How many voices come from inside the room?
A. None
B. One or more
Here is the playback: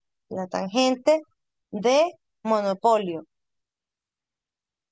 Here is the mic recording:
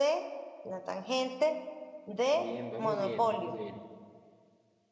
B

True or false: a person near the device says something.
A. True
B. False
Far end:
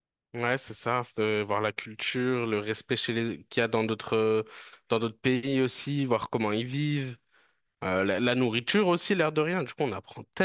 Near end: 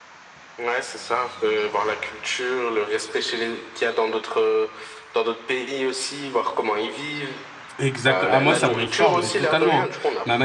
A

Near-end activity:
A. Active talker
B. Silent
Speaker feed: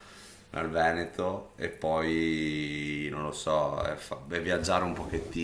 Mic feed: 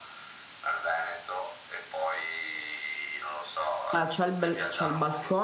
A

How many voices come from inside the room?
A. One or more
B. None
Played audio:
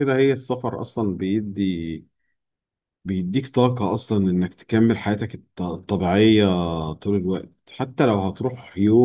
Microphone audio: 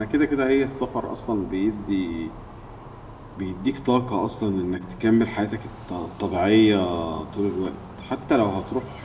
B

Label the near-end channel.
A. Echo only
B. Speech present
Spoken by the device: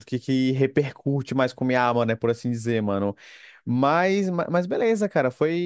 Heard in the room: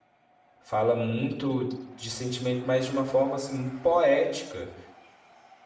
B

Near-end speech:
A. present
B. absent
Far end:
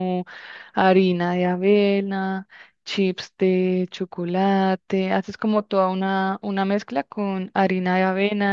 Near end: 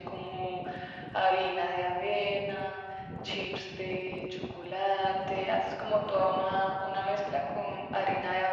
B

